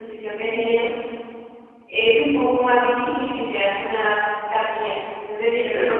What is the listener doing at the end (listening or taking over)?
taking over